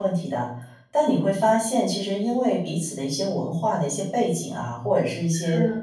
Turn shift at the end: No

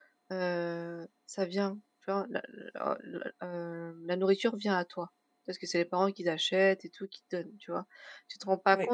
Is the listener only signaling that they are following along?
Yes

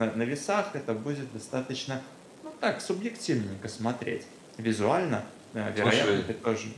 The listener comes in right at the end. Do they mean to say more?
No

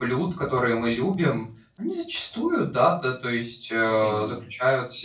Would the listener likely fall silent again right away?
Yes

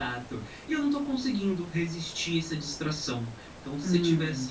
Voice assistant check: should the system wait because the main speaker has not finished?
Yes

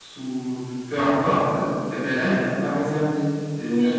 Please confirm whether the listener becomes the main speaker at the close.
Yes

